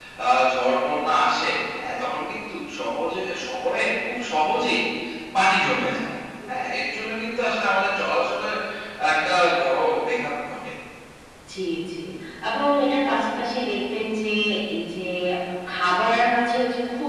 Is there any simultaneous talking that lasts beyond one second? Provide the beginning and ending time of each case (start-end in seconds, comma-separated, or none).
none